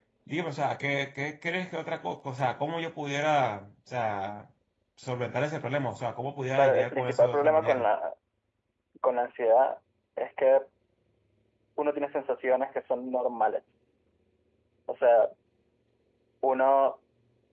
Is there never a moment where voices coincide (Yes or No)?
No